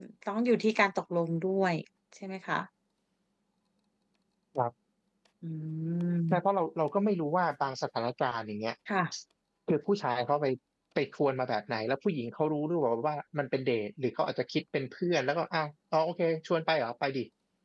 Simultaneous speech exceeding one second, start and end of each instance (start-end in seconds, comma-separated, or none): none